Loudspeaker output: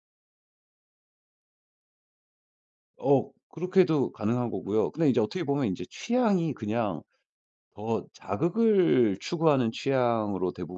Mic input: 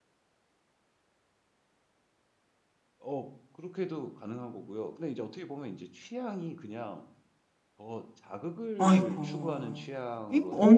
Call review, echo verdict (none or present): present